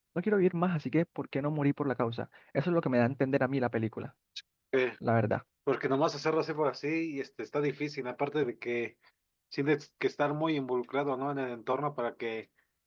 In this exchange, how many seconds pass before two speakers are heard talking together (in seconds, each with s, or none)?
none